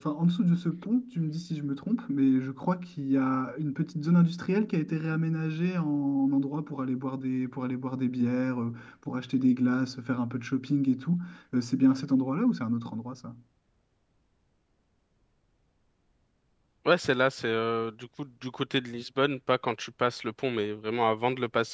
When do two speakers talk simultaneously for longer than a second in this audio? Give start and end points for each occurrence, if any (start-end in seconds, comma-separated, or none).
none